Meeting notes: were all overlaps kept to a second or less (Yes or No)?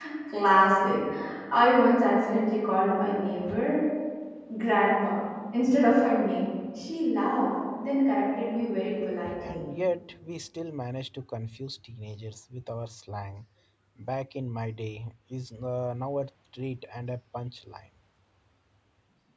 Yes